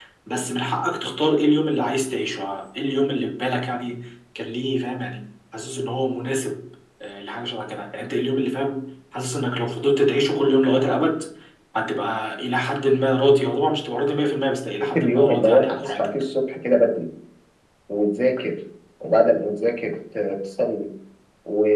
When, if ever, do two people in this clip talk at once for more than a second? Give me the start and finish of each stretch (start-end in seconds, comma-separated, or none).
14.8-16.1